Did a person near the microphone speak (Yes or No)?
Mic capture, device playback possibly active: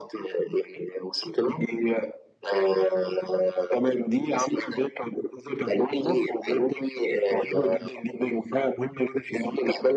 No